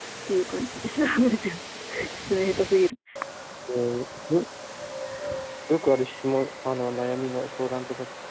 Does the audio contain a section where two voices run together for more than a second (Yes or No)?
No